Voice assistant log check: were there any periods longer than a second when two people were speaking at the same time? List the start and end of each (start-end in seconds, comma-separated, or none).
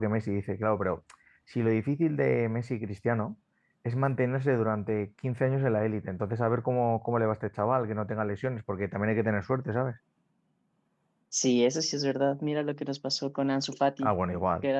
none